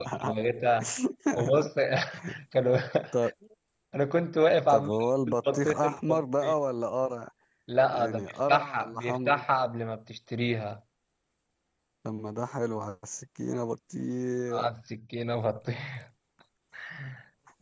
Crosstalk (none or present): present